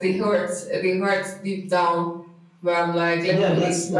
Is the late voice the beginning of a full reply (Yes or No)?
Yes